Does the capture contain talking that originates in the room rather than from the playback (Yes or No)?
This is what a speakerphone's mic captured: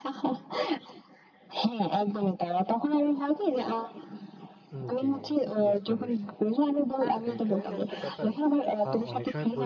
Yes